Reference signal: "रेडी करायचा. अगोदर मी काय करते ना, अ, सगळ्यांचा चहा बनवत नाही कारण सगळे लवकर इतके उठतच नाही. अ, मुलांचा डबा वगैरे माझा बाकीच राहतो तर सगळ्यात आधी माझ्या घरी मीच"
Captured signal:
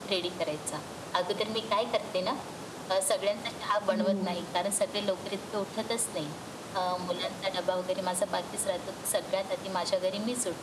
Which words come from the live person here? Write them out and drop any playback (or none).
हो.